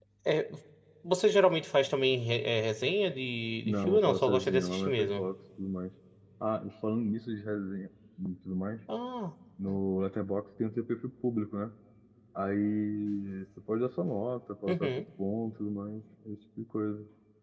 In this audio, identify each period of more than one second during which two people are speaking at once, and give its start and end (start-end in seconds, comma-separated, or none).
3.6-5.2